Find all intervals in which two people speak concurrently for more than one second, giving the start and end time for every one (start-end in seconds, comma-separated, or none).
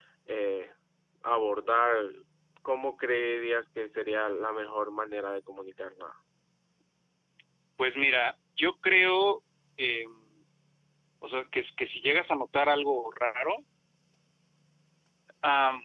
none